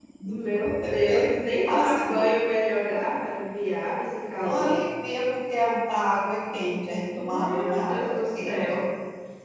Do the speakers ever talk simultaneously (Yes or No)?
Yes